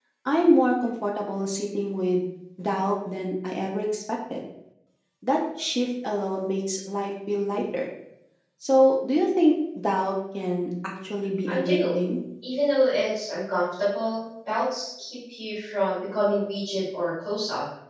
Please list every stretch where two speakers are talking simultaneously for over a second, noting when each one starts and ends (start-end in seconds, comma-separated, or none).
none